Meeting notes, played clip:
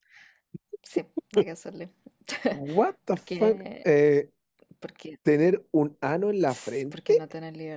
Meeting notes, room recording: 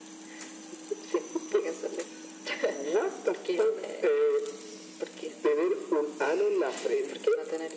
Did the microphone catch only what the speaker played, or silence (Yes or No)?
Yes